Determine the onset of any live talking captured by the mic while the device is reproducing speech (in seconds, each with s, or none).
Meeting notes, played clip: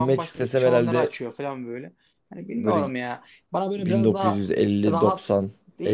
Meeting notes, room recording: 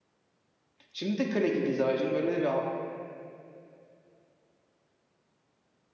0.9 s